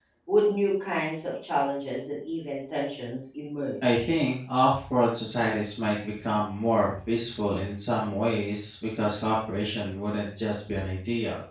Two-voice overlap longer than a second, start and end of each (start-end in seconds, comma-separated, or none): none